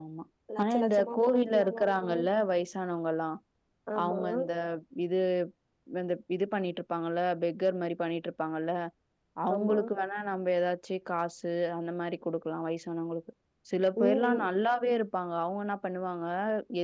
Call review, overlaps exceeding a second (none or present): present